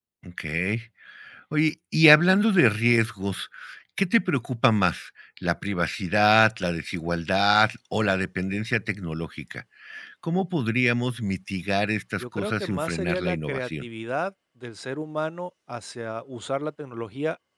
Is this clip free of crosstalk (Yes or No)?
No